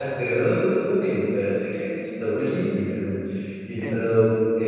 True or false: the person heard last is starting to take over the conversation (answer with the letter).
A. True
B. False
B